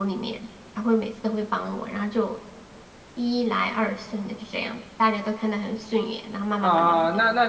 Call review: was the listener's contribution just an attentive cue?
No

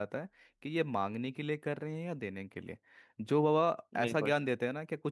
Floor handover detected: No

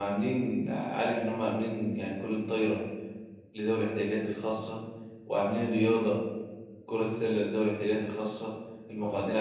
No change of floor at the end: Yes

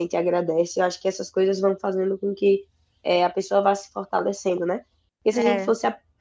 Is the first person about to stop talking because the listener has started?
No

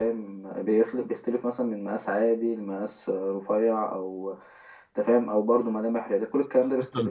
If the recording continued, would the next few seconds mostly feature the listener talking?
Yes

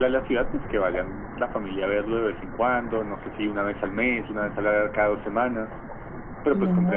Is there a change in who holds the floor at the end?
Yes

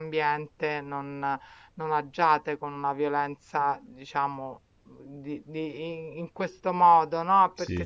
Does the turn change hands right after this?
No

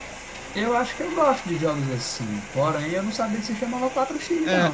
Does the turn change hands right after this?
Yes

